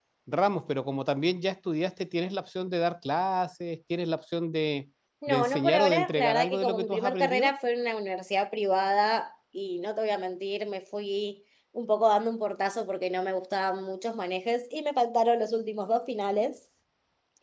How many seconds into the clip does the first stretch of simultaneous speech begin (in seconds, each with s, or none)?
5.2 s